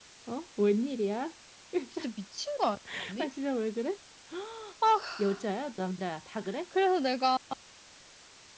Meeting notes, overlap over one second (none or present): none